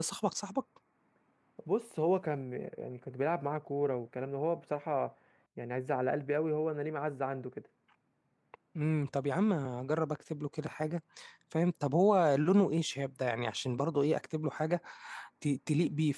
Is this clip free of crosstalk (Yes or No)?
Yes